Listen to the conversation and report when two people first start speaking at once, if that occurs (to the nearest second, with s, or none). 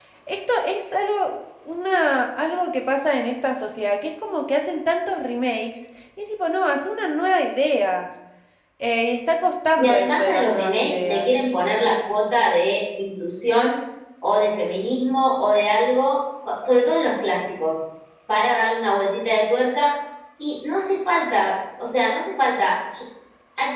10 s